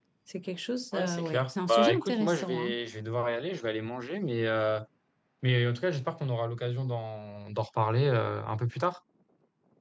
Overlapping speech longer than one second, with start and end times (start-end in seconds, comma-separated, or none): 1.0-2.8